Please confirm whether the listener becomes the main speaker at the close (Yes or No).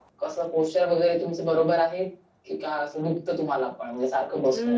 Yes